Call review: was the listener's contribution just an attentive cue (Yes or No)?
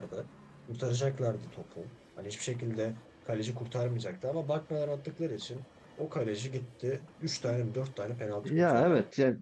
No